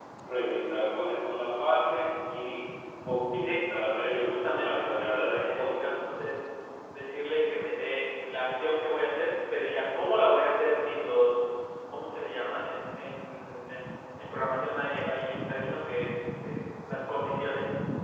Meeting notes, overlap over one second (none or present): present